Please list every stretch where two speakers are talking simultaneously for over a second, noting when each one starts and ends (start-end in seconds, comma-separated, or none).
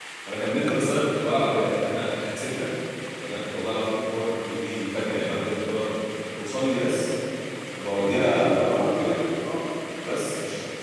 8.0-9.2